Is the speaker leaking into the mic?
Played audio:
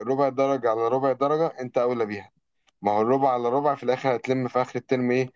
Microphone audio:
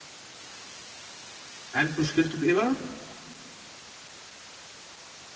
No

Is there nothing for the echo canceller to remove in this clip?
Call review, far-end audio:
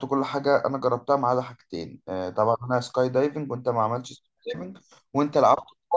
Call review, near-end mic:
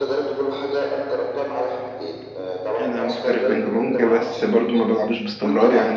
No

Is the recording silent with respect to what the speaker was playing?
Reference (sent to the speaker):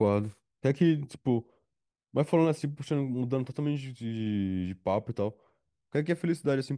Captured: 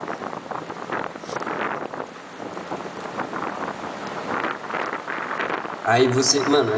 Yes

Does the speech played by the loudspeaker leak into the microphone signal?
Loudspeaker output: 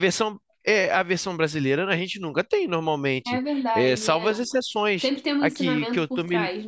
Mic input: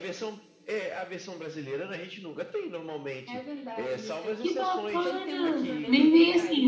Yes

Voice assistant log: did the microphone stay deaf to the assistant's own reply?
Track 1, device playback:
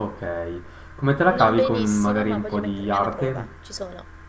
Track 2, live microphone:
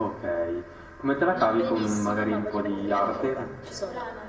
No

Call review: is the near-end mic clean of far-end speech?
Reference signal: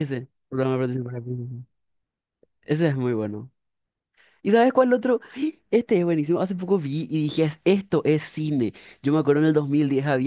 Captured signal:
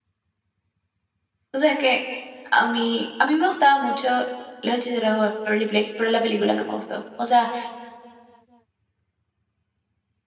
Yes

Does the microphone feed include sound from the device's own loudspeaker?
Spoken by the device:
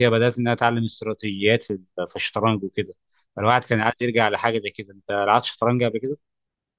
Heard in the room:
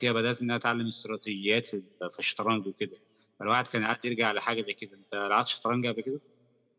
Yes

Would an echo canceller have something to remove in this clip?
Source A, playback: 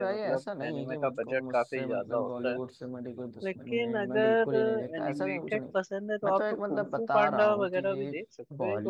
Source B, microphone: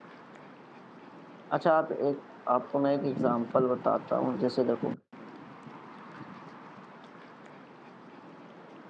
No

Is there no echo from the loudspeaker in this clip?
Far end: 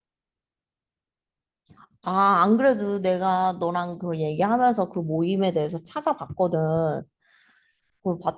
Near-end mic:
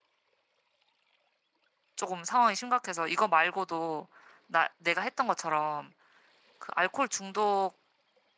Yes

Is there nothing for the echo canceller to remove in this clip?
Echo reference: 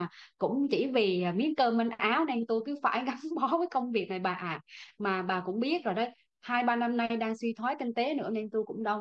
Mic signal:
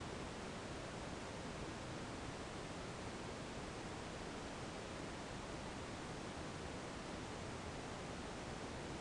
Yes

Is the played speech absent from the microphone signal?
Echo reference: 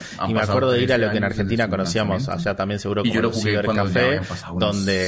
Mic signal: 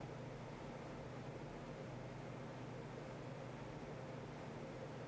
Yes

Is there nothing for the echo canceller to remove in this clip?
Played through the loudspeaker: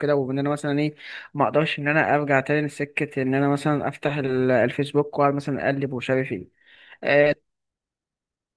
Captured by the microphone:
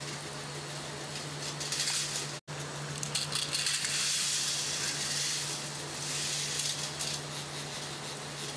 Yes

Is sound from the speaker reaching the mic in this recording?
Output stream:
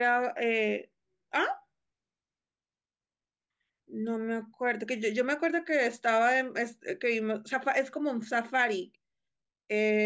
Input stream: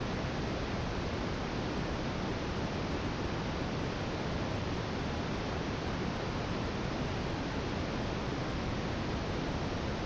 No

